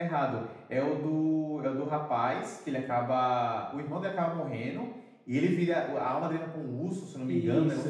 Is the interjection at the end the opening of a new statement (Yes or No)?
Yes